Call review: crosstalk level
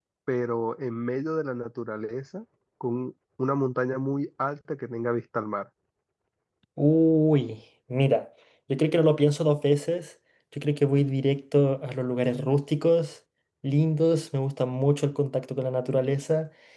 none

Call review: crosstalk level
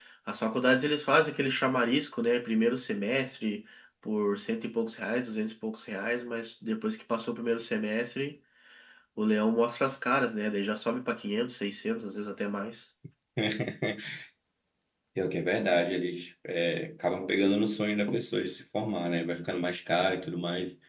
none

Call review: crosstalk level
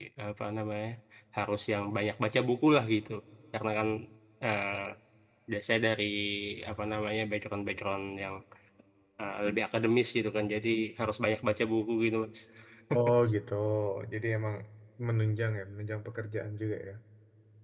none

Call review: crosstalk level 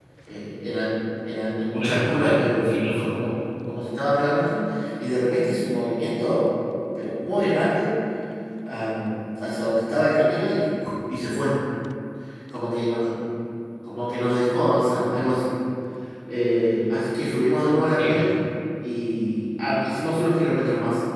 present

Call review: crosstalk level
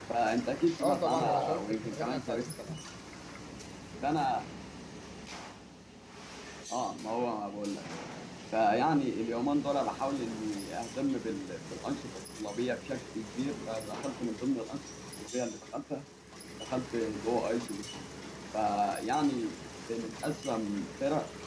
present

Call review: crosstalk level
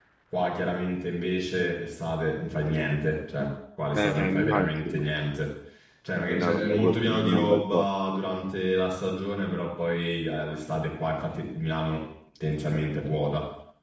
present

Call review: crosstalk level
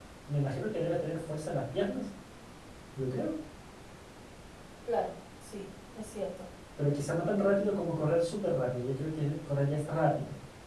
none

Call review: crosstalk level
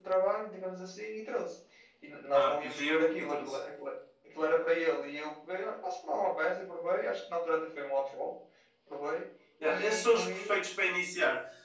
present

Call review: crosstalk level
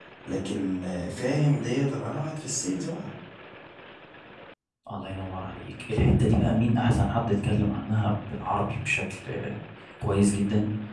none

